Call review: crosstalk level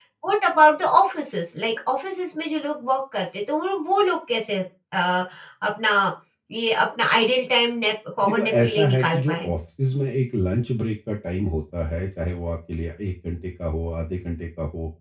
present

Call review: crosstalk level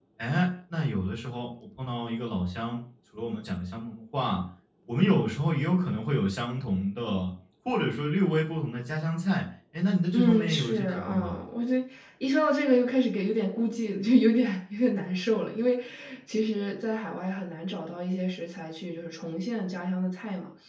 present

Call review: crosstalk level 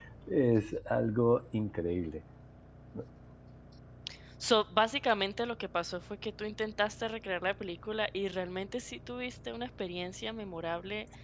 none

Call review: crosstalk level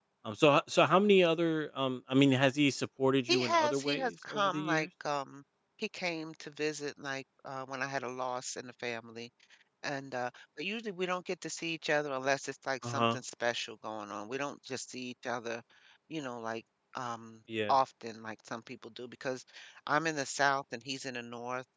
present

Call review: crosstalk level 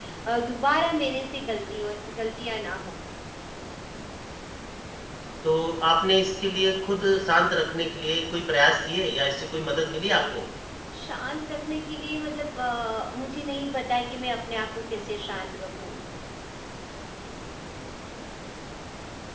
none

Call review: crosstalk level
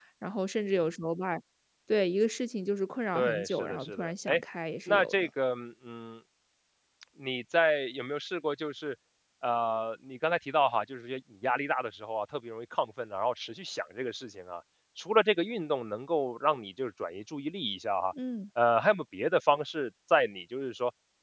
present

